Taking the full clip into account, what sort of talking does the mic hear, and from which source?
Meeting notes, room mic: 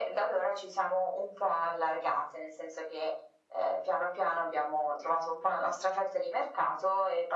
echo only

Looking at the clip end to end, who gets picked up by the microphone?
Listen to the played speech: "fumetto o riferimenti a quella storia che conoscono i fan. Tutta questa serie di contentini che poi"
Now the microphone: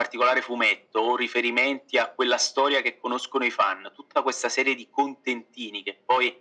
echo only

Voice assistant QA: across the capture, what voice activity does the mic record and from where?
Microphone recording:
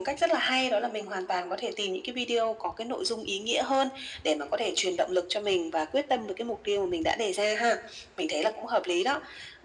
echo only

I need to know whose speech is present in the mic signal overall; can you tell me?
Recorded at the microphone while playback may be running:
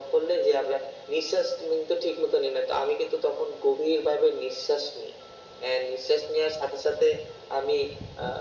echo only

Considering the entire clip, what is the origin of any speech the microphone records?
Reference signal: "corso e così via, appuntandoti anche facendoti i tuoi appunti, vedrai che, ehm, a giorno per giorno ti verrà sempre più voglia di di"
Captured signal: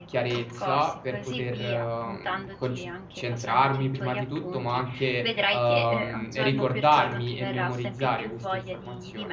both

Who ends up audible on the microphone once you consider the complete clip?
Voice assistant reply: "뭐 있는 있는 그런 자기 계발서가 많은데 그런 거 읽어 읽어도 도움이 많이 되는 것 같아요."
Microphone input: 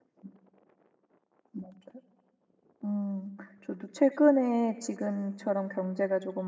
user only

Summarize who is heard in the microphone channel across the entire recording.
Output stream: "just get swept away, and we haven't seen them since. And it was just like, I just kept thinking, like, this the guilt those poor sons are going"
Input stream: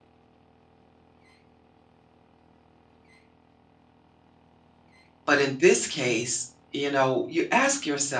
user only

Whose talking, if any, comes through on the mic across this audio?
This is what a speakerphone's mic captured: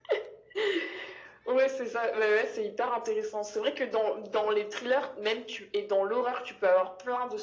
echo only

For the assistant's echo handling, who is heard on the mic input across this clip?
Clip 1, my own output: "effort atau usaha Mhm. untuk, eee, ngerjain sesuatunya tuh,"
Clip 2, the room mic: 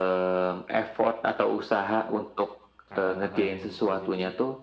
both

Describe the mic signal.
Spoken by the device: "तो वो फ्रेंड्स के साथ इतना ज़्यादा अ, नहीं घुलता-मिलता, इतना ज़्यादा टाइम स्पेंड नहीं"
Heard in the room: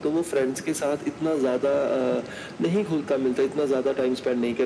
echo only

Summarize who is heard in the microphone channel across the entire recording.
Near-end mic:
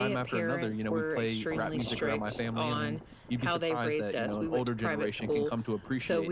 echo only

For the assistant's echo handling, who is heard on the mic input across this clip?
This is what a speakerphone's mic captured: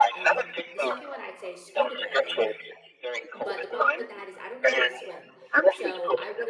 both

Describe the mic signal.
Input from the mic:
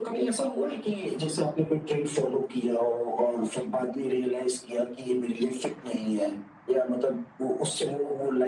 echo only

